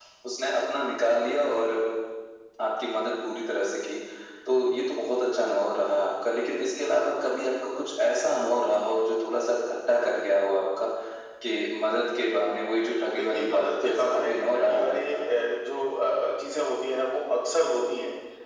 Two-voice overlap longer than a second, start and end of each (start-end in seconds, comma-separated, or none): 13.1-15.2